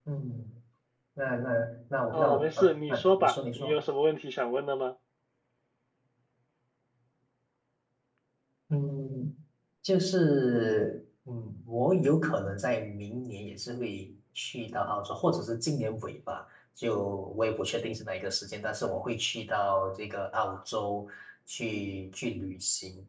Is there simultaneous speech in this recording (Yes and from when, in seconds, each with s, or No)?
Yes, from 2.1 s